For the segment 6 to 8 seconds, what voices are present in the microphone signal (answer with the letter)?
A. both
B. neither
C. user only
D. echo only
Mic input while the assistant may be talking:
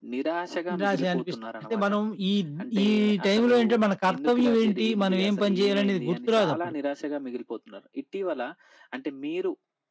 A